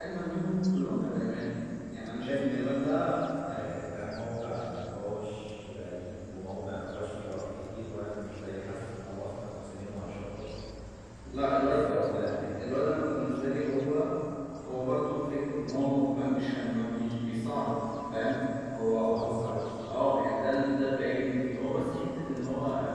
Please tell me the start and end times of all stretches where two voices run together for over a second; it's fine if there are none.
none

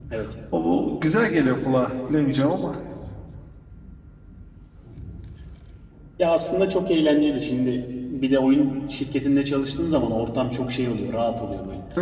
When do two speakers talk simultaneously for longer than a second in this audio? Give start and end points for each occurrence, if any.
none

